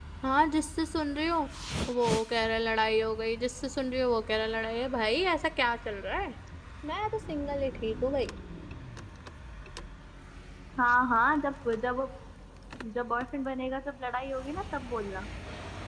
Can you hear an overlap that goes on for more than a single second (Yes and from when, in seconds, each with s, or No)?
No